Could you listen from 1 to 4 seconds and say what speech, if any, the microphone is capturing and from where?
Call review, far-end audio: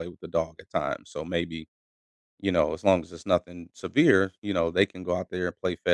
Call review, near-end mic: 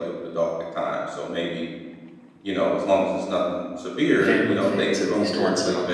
echo only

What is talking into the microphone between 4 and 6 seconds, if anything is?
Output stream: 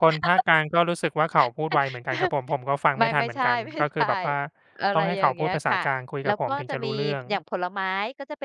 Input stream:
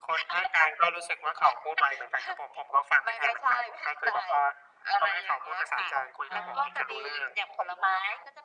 echo only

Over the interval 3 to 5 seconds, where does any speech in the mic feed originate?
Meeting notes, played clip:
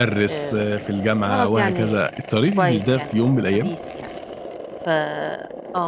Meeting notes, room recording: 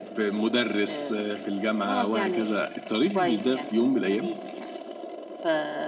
echo only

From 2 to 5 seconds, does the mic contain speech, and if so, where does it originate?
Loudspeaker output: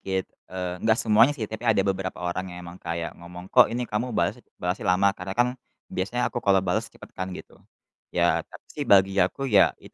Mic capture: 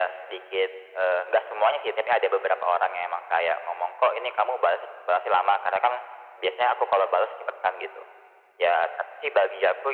echo only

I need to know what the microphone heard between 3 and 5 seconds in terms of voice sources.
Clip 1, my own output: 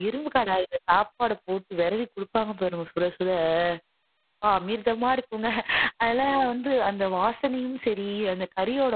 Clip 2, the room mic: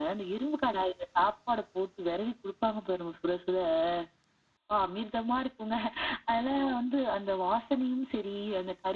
echo only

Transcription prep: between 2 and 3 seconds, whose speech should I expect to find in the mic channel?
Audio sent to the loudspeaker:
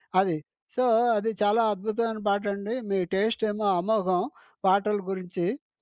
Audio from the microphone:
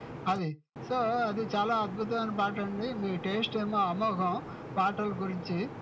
echo only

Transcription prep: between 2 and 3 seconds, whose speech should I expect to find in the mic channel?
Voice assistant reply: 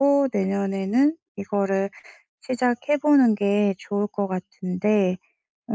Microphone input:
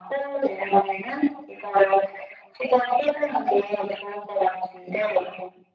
echo only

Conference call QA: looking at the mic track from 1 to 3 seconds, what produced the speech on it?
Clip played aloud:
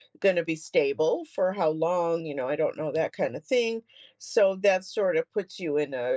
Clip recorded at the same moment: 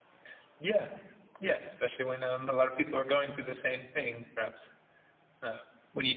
user only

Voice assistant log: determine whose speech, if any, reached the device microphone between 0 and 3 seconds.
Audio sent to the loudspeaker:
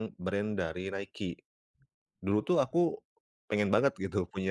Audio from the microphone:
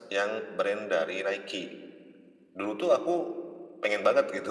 echo only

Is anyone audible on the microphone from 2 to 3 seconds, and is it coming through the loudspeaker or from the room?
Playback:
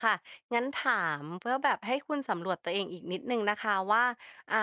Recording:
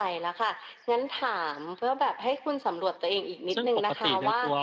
echo only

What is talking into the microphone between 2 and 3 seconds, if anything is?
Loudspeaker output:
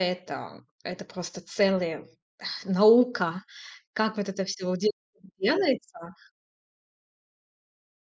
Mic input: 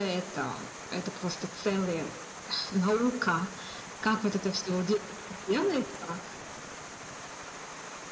echo only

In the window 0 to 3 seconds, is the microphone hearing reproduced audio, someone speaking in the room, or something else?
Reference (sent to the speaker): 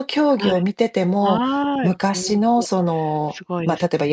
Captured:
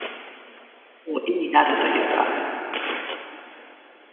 user only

